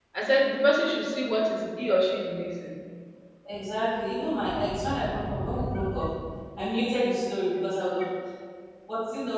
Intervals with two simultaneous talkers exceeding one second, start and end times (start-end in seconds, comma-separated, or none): none